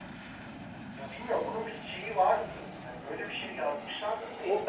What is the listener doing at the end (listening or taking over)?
taking over